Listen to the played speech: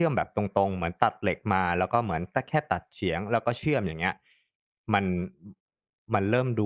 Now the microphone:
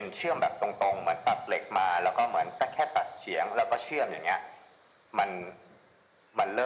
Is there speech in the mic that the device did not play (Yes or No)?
No